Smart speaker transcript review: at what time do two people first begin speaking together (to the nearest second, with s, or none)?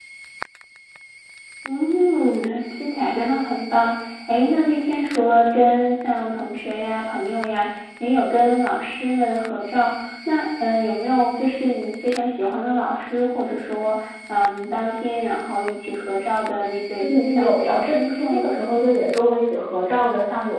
17 s